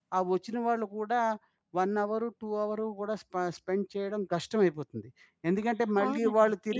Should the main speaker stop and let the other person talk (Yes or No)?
Yes